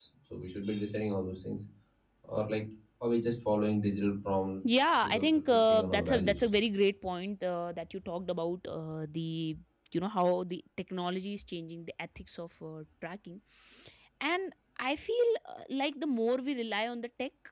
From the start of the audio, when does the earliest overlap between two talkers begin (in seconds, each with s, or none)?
4.6 s